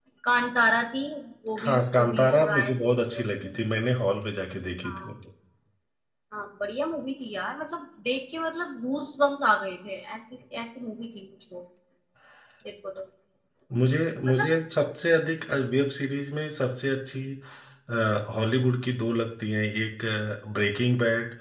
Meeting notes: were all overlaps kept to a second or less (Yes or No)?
No